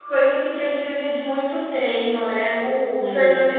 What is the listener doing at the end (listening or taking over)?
listening